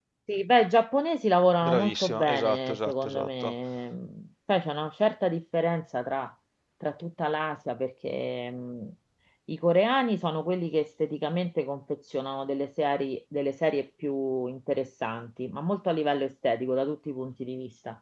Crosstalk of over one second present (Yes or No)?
Yes